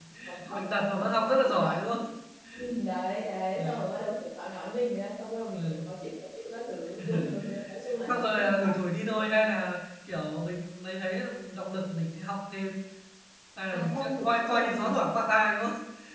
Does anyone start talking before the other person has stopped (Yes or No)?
Yes